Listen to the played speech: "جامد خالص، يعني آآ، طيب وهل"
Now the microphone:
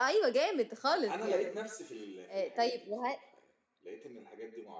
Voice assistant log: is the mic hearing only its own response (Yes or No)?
No